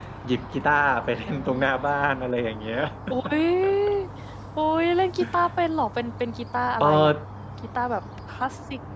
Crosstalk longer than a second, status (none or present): none